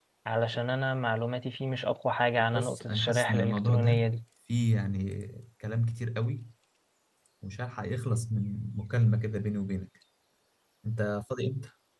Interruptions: present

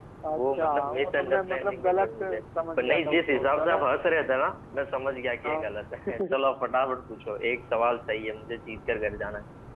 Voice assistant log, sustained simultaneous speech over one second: present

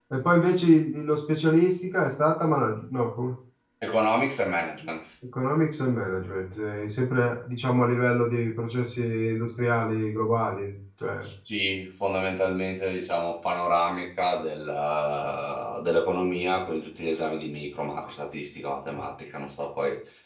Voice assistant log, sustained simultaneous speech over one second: none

